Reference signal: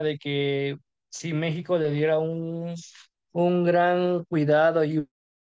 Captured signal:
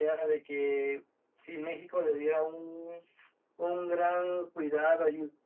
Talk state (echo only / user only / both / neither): echo only